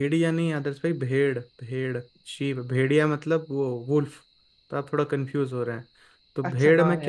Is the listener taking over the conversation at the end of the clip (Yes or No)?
Yes